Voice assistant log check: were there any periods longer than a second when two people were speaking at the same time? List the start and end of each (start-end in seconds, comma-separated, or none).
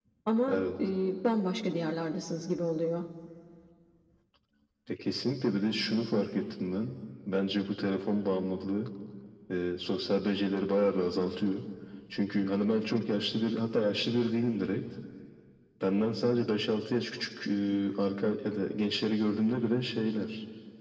none